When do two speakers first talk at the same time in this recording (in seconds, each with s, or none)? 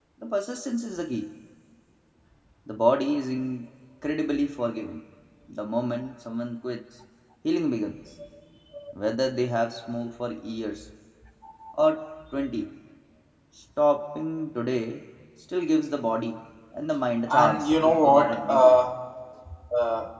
17.3 s